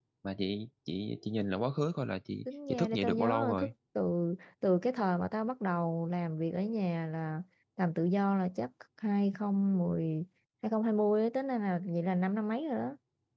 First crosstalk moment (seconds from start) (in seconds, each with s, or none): 2.5 s